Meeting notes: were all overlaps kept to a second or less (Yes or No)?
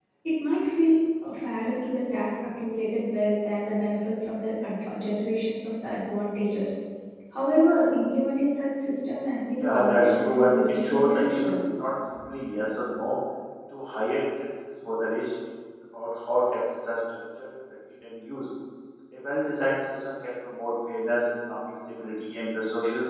No